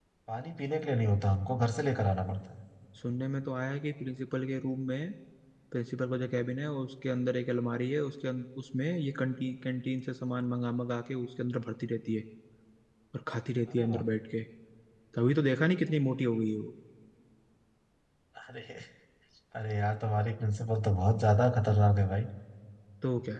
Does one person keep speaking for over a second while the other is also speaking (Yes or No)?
No